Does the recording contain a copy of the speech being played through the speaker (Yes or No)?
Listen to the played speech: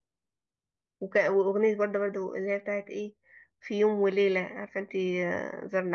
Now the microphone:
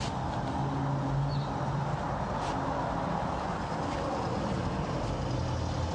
No